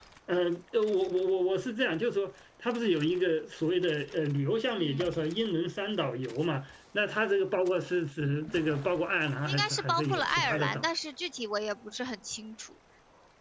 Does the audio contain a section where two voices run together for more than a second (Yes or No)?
Yes